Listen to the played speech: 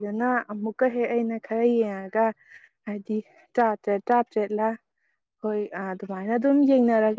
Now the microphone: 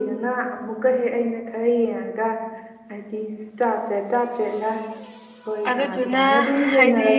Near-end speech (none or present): present